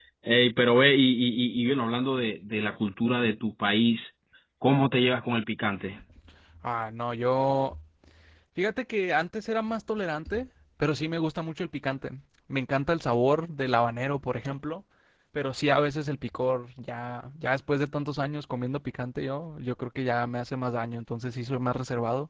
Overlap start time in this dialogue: none

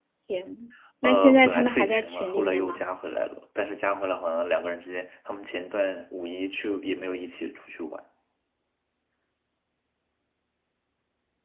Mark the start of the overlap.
1 s

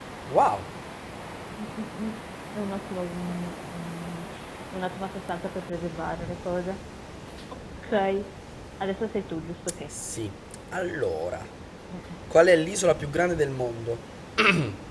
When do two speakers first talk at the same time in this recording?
none

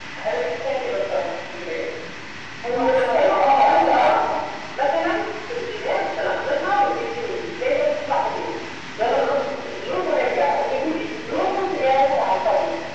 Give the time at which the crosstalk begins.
3 s

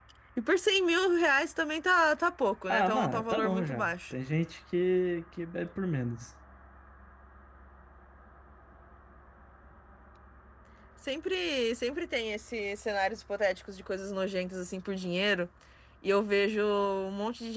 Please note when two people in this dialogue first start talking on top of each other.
3 s

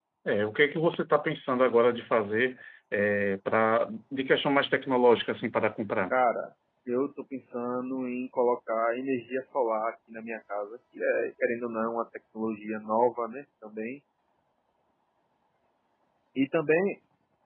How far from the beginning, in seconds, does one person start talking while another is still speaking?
none

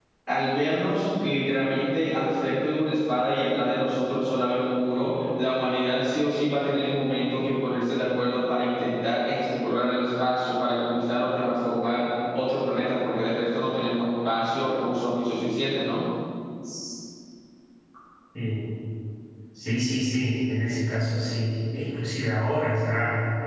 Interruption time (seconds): none

